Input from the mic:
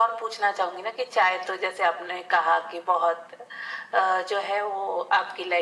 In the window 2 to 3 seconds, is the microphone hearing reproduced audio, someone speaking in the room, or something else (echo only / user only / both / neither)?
echo only